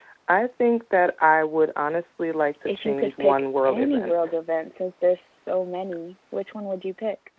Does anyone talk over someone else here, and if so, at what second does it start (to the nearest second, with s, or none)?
3 s